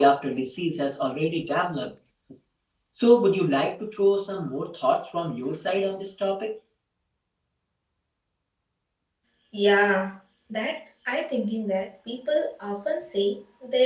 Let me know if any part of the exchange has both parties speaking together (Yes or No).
No